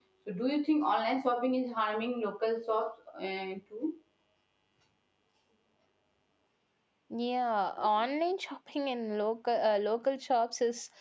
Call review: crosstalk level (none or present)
none